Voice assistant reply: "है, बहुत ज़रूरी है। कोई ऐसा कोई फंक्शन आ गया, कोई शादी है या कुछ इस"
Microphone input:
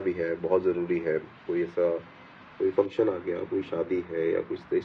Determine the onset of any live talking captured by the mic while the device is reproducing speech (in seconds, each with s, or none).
none